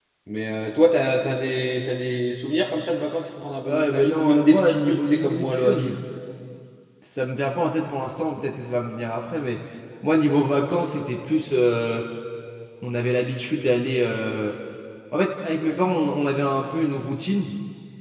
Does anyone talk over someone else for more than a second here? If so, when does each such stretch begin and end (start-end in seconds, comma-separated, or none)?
3.6-5.9